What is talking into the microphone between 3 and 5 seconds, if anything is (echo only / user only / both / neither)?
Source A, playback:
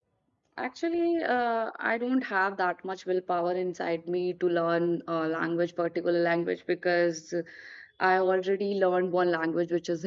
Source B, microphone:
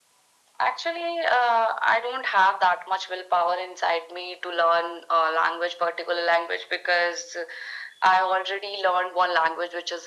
echo only